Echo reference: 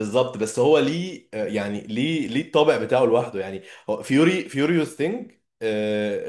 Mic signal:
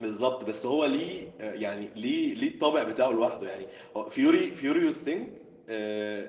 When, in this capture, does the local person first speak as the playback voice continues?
none

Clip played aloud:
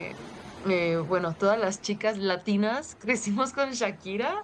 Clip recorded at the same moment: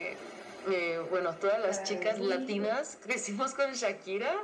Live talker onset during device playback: 1.6 s

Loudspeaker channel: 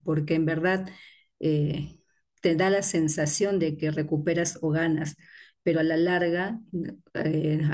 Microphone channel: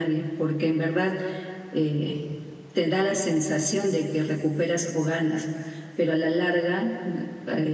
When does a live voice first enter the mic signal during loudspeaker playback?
none

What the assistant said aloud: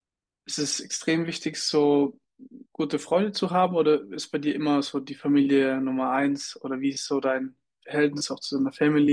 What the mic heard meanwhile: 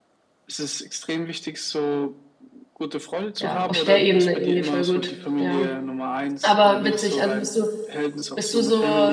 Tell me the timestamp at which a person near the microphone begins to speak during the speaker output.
3.4 s

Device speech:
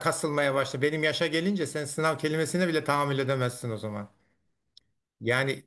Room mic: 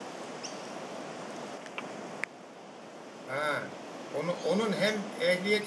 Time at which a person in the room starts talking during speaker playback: 3.3 s

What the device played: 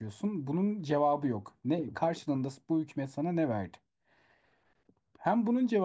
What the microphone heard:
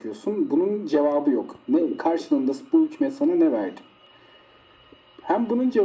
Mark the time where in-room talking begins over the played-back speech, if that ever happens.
none

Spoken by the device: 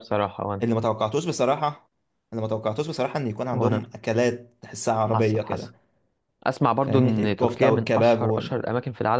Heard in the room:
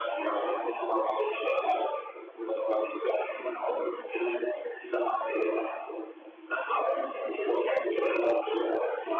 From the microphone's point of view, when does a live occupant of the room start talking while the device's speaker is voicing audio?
none

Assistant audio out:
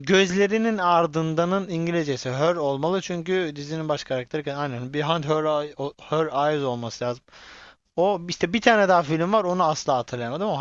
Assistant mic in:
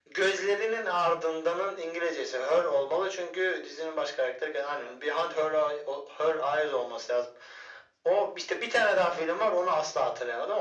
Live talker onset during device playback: none

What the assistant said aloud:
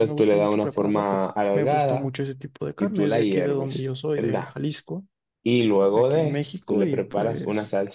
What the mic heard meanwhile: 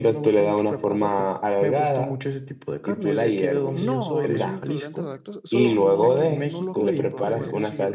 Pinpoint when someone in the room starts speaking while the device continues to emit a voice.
3.7 s

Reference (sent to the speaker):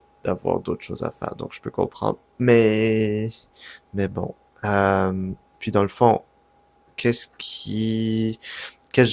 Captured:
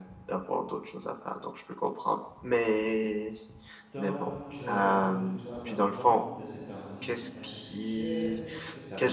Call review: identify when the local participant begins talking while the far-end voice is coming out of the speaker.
3.9 s

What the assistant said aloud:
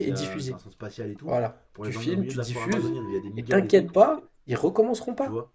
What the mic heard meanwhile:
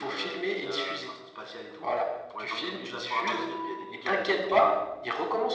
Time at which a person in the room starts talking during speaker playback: none

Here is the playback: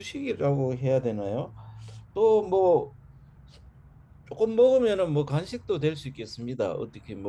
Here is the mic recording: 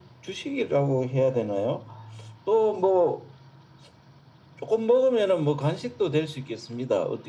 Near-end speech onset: none

